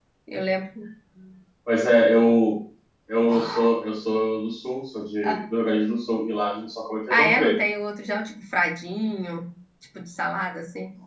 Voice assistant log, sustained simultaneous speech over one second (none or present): none